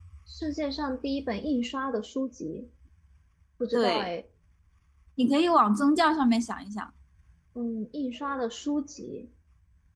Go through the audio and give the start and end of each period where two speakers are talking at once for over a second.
none

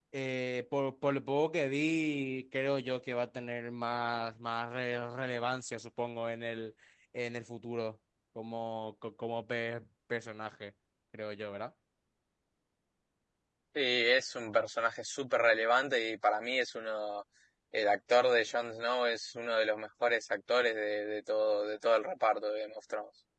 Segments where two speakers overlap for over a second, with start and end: none

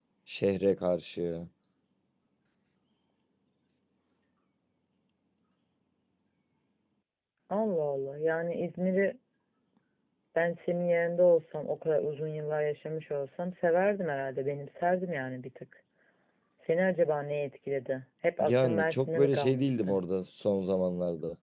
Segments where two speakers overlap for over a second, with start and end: 18.4-20.0

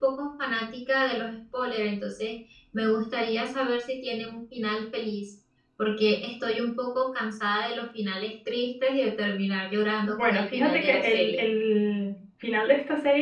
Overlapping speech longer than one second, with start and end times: 10.0-11.4

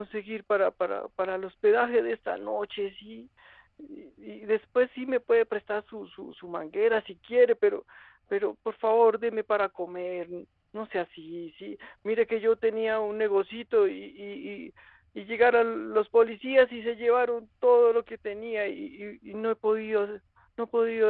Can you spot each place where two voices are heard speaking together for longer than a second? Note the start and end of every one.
none

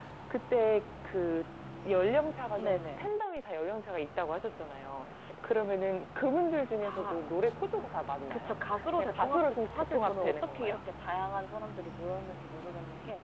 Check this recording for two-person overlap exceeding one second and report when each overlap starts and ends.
9.0-10.8

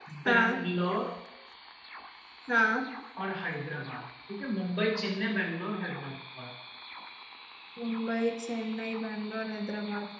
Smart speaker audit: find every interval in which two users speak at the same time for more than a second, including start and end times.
none

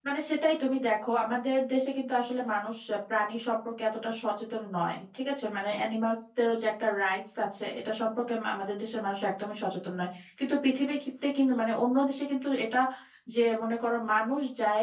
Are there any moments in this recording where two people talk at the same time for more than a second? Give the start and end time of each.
none

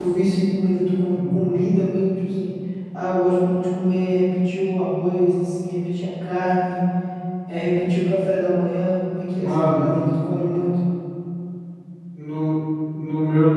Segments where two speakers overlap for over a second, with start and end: none

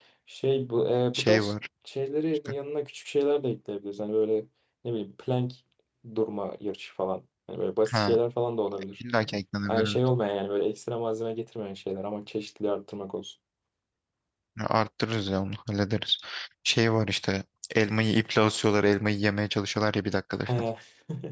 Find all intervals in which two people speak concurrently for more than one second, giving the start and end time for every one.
none

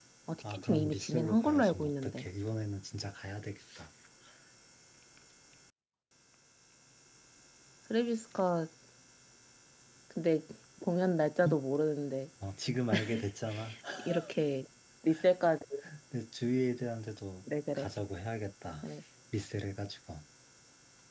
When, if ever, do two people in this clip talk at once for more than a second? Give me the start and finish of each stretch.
0.5-2.3

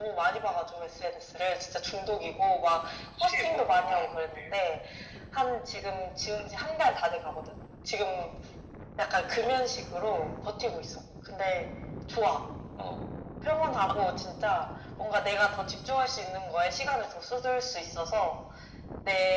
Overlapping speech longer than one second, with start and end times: 3.2-4.6

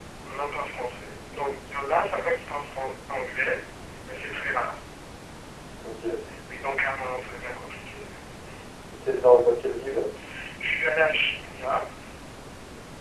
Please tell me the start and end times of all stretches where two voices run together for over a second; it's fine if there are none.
none

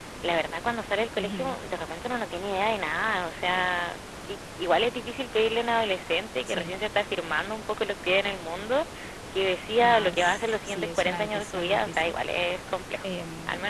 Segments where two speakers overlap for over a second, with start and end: 9.8-12.1

